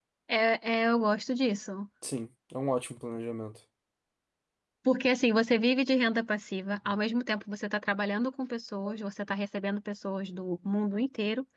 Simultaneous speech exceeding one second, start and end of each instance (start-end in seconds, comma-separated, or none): none